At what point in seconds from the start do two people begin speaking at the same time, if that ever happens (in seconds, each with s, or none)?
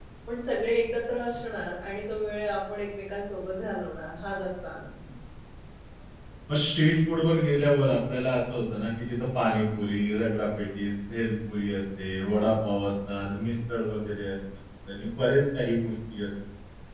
none